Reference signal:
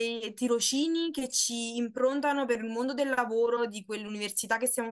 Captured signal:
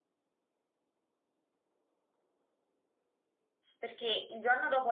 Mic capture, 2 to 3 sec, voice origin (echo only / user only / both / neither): neither